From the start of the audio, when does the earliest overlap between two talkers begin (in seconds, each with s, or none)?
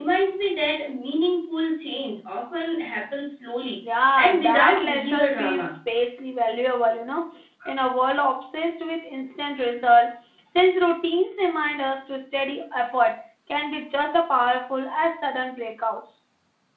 3.8 s